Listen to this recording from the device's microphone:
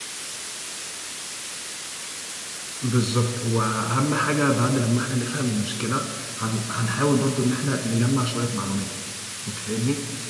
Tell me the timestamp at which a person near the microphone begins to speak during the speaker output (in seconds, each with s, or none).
2.8 s